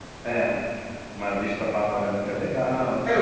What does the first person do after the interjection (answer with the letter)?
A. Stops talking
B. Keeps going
A